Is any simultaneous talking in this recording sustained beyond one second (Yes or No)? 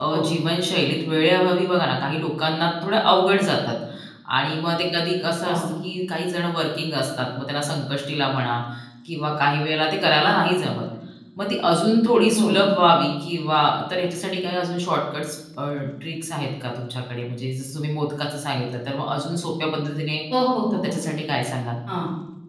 No